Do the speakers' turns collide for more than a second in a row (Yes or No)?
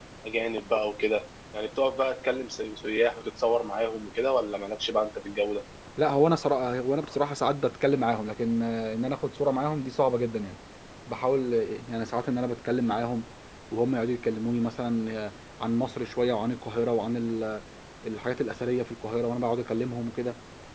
No